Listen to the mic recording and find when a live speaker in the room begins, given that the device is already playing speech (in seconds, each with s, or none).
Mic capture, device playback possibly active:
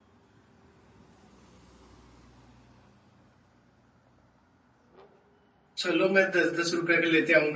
5.8 s